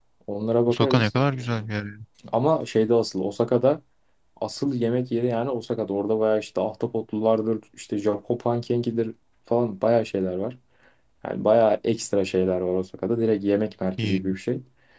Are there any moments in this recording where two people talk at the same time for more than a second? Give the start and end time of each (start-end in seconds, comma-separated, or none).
none